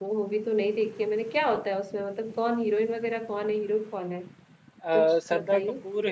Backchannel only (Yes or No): No